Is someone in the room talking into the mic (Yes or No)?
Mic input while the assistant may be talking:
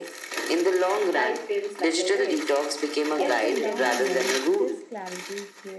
Yes